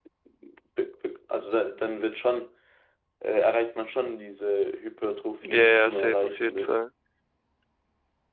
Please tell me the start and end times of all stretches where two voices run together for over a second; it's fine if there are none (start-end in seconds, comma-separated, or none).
5.5-6.7